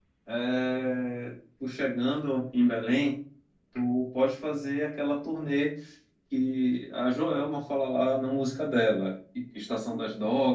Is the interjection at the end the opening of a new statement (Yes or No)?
No